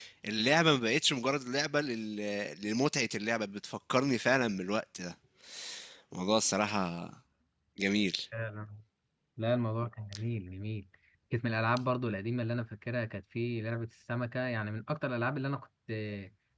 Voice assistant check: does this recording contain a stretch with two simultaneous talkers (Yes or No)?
No